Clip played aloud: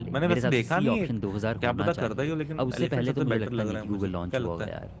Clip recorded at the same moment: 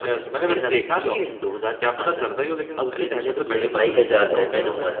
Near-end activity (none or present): present